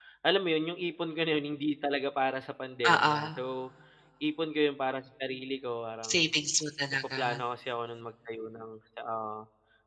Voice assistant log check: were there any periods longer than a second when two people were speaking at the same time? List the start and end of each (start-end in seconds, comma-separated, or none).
none